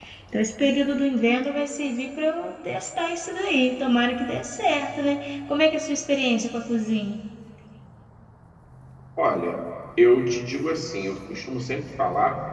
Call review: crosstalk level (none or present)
none